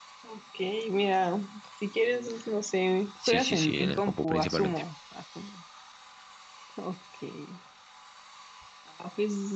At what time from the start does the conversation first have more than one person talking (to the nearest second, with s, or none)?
3 s